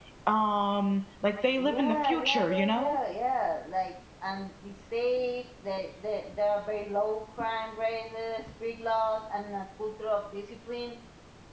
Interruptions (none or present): present